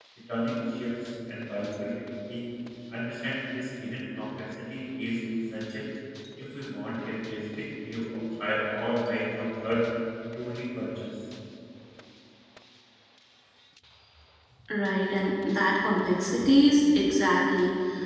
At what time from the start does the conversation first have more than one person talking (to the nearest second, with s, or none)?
none